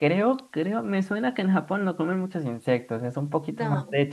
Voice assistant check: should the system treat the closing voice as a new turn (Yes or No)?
No